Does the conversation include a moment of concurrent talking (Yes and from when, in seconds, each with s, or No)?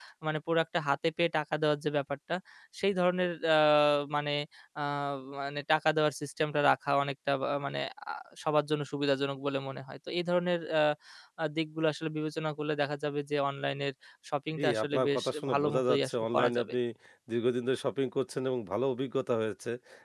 Yes, from 14.6 s